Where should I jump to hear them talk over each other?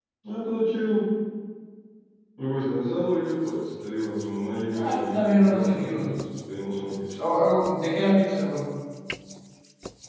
4.7 s

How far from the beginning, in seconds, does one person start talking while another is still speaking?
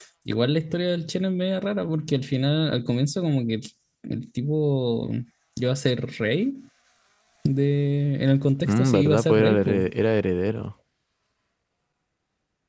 8.6 s

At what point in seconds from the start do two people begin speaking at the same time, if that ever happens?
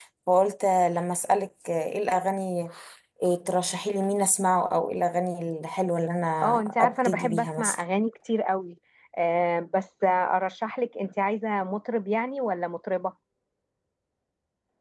6.4 s

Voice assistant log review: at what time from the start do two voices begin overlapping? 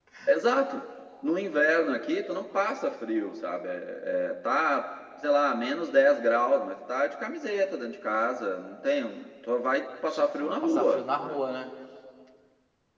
10.1 s

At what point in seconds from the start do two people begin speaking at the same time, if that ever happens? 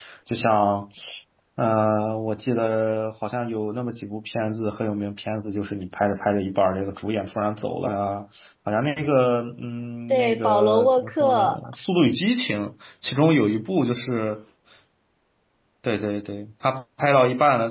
10.1 s

